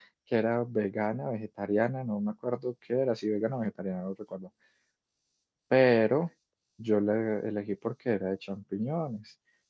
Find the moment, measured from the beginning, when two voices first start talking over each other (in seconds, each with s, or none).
none